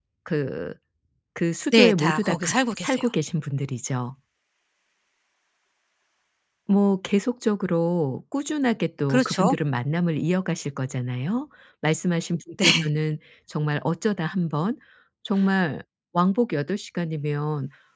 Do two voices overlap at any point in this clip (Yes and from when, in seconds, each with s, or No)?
Yes, from 1.7 s